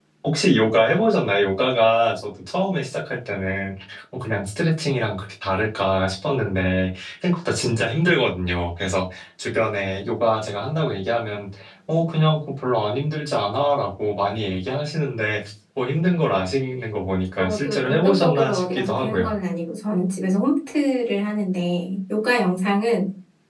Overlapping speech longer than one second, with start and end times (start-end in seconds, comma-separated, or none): 17.4-19.3